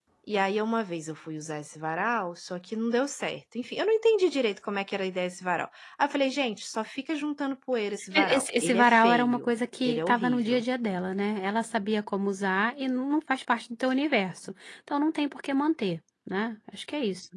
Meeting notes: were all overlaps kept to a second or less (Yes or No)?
No